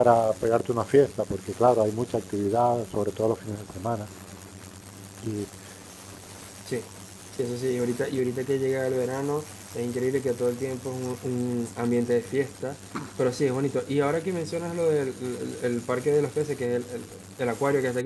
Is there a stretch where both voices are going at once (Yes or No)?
No